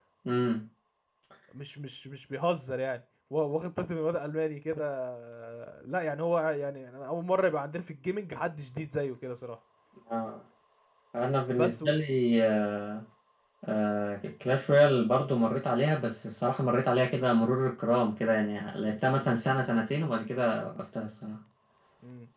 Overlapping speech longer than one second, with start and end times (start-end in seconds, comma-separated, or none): none